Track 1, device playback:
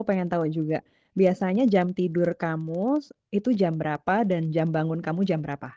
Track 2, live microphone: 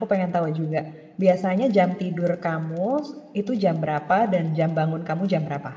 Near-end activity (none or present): none